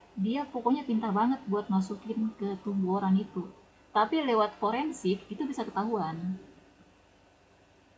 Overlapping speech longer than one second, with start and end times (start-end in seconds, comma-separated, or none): none